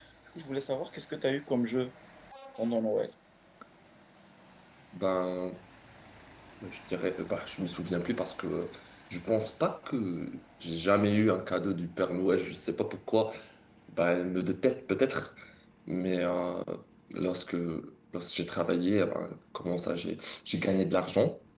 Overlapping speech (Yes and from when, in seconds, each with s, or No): No